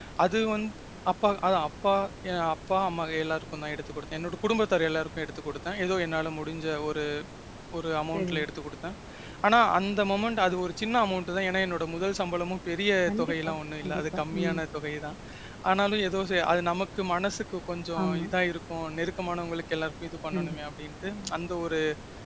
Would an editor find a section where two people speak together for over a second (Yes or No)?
Yes